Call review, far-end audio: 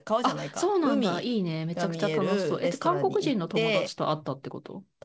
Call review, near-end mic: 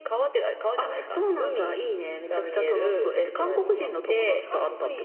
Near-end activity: present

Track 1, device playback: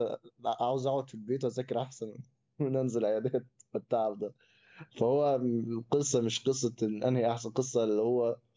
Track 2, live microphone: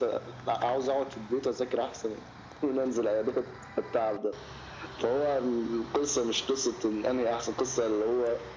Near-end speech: none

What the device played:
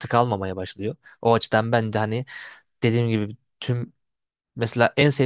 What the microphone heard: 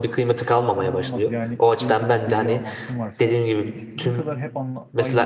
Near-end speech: present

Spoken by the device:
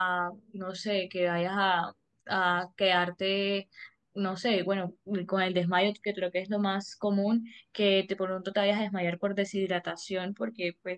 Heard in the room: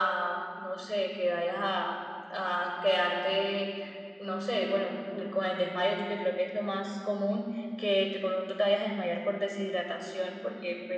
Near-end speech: none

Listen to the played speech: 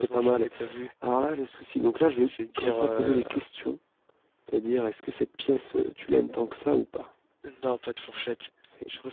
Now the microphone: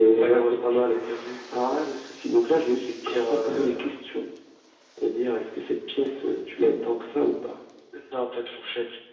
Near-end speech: none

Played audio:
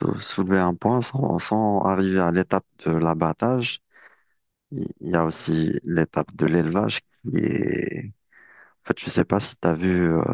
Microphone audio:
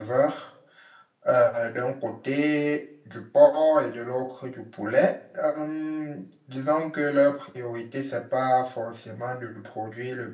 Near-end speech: present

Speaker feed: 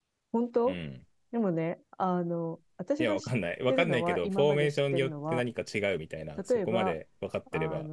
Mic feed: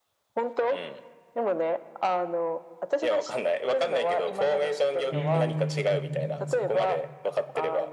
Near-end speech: present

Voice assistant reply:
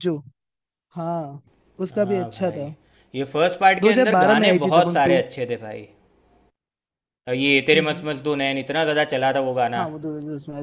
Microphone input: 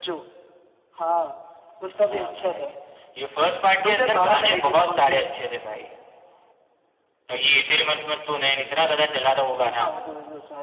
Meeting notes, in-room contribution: none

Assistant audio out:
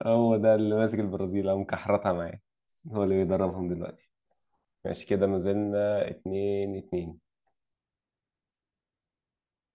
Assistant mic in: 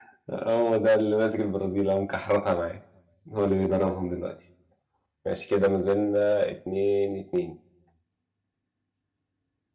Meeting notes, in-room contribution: none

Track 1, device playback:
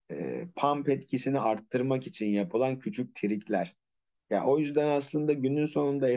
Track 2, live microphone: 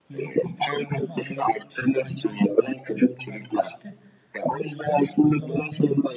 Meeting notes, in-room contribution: present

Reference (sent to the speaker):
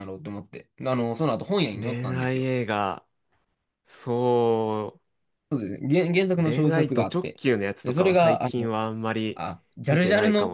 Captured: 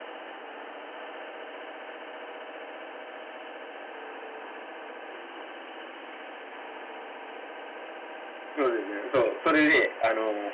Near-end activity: present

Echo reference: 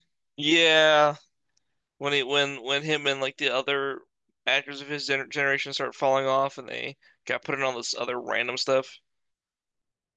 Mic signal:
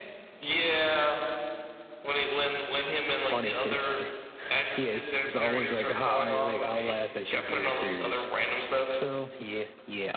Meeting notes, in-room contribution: present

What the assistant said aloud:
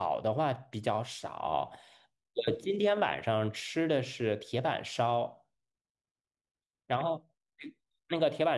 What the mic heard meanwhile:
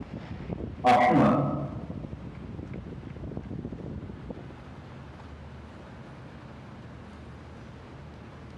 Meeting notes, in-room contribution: present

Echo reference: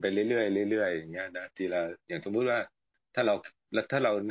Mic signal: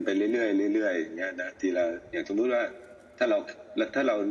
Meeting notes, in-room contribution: none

